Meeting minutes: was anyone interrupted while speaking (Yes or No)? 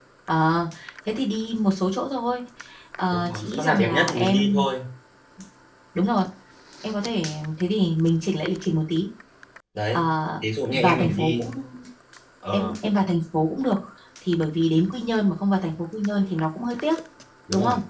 Yes